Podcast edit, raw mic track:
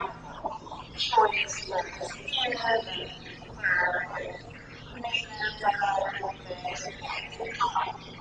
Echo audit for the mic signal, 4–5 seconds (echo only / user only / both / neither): echo only